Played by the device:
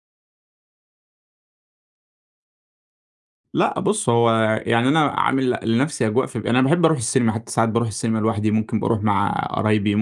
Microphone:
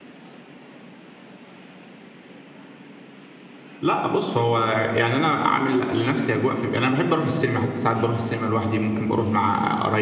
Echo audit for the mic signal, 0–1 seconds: neither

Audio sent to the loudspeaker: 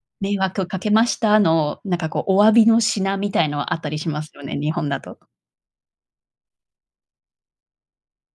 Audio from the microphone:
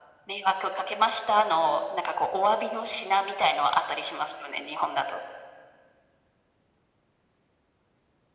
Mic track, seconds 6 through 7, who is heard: neither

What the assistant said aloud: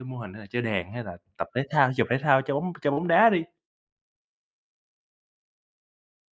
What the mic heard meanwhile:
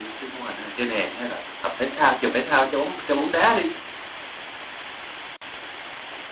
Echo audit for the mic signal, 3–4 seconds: echo only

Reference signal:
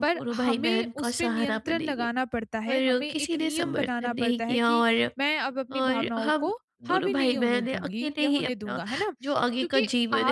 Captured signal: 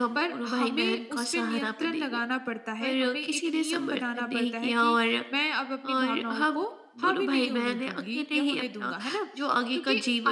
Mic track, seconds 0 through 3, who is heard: echo only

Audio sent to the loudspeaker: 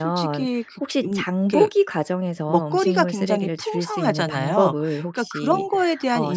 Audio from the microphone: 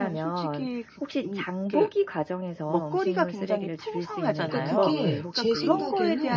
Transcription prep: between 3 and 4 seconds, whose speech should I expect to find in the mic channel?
echo only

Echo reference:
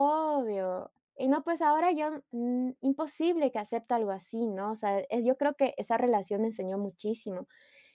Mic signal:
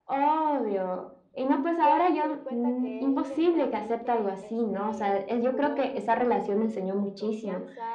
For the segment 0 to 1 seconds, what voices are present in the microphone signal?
echo only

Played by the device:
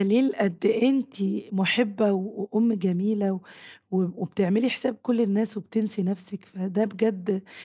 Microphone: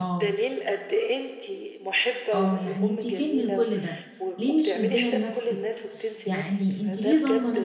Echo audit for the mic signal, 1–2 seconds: echo only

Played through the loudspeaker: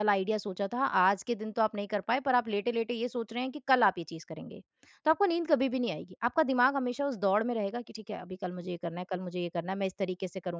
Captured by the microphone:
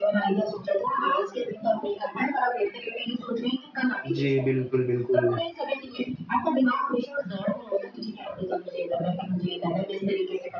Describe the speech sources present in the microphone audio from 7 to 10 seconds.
echo only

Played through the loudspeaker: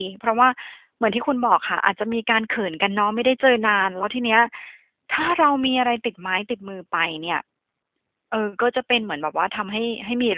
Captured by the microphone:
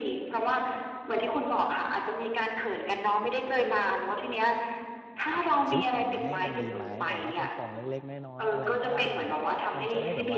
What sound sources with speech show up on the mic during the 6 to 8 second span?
both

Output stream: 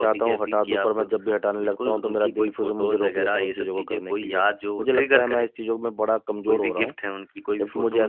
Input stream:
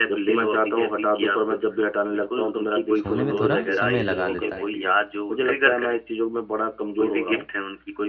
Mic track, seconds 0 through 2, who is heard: echo only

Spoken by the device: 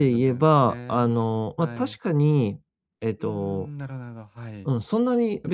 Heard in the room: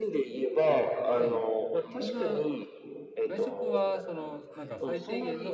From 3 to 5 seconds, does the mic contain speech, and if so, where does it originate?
both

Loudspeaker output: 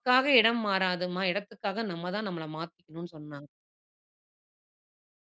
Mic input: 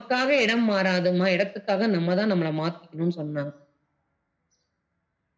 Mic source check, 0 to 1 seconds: echo only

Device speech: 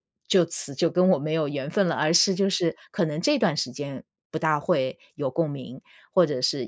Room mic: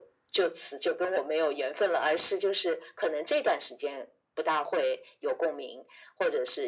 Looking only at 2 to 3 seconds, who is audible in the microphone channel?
echo only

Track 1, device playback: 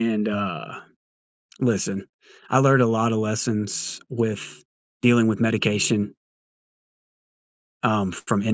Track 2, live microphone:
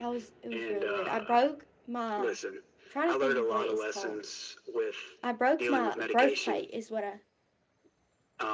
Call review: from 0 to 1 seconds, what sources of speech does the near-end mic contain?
both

